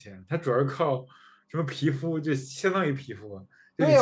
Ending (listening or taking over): taking over